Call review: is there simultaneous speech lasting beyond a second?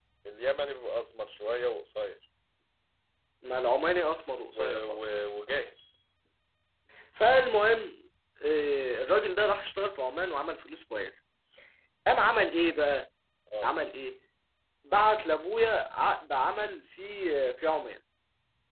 No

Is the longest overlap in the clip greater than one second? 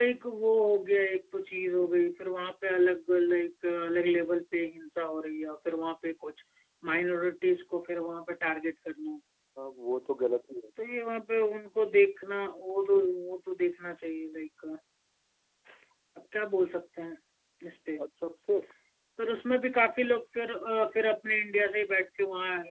No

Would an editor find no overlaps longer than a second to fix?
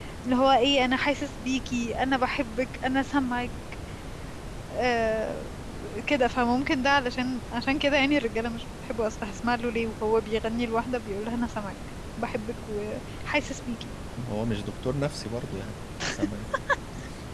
Yes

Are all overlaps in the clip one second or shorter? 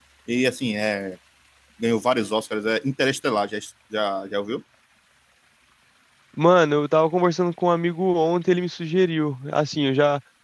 Yes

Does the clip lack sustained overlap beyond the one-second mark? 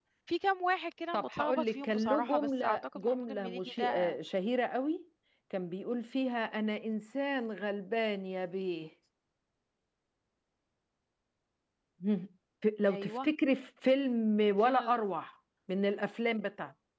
No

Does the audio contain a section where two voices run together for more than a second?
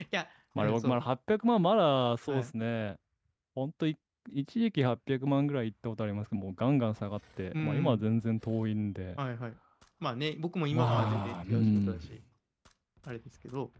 Yes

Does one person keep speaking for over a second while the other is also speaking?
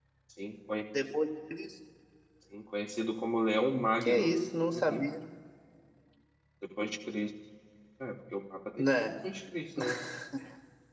No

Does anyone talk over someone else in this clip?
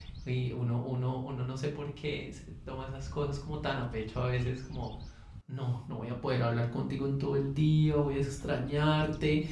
No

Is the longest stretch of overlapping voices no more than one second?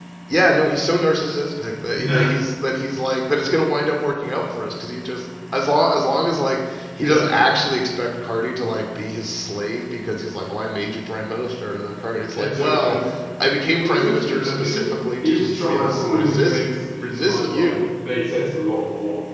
No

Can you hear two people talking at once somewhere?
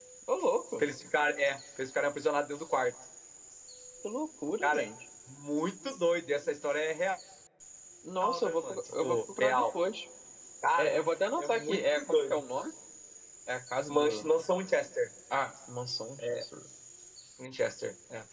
Yes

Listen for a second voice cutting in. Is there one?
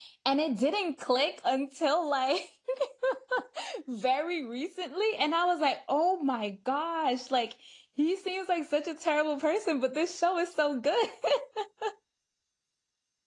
No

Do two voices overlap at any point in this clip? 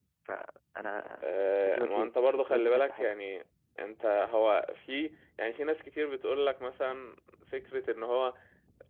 Yes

